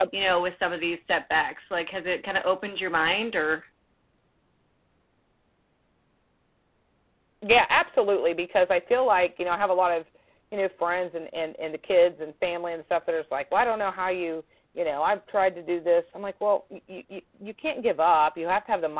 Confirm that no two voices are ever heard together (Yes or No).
Yes